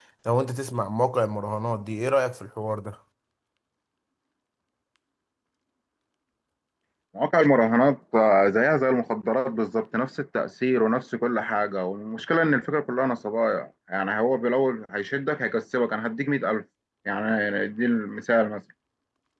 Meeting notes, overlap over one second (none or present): none